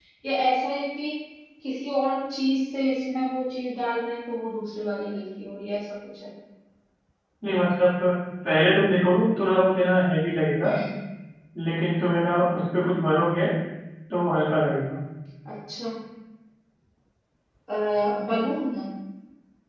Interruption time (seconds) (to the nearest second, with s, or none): none